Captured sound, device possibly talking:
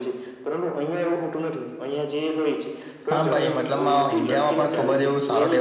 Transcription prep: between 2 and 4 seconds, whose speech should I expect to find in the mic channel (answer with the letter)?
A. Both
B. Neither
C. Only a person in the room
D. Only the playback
A